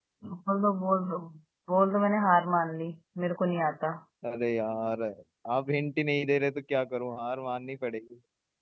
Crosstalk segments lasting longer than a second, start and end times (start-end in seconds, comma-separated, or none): none